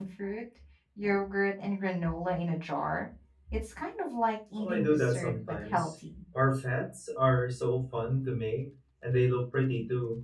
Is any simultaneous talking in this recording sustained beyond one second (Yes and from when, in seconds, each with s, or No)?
Yes, from 4.6 s